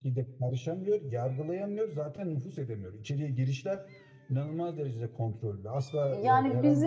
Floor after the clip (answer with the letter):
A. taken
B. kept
A